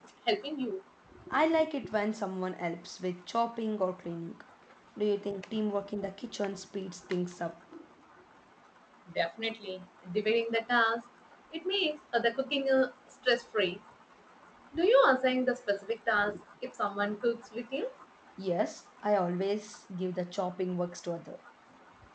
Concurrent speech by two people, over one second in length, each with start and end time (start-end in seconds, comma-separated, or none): none